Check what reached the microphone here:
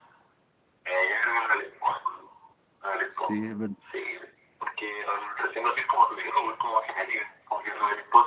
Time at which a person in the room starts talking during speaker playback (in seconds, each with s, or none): 3.1 s